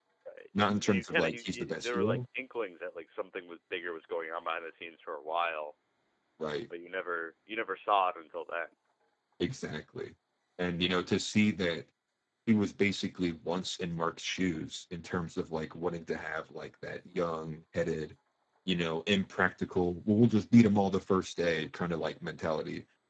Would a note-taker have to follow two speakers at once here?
Yes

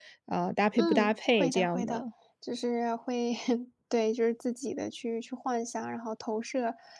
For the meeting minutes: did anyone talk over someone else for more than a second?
Yes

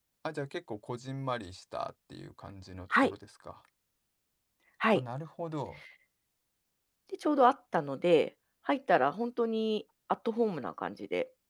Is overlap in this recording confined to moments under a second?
Yes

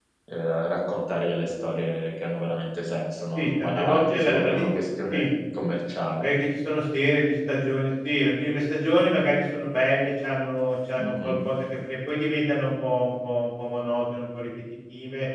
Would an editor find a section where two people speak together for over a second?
Yes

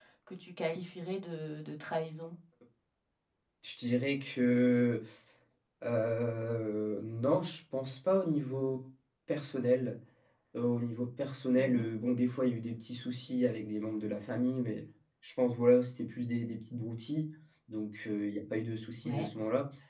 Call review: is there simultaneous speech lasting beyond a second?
No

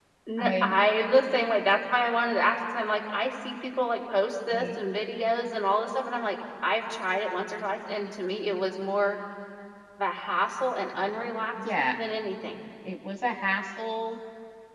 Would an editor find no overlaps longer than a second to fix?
Yes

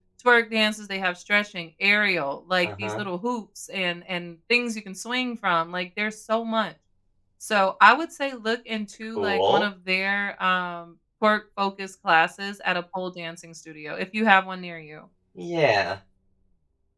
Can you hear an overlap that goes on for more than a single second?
No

